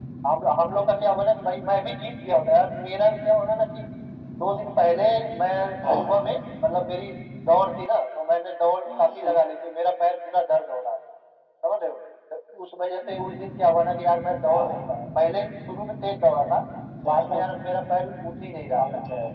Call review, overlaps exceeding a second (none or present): none